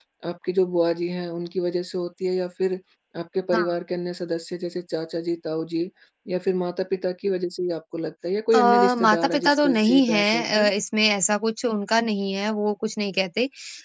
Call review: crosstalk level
present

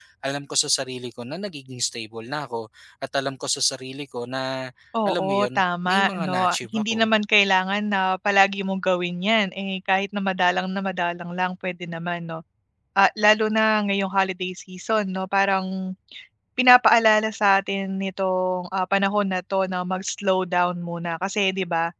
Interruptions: present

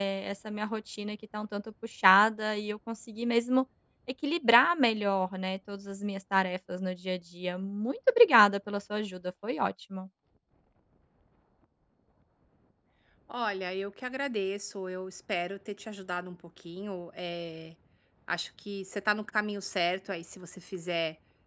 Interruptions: none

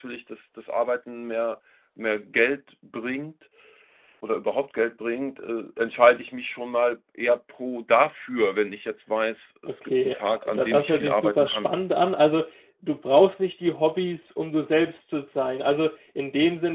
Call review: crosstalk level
present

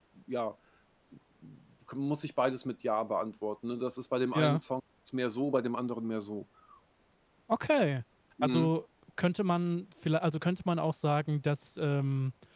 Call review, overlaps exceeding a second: none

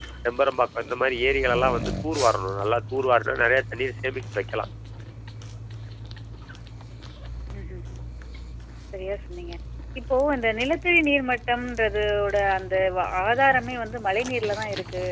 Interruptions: none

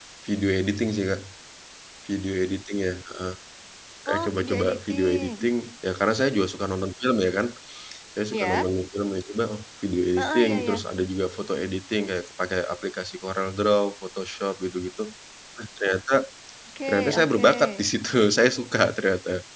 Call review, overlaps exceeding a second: present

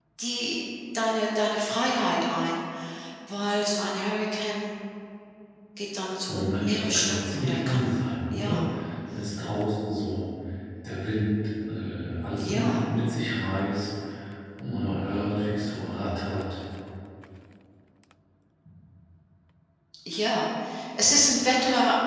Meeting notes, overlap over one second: present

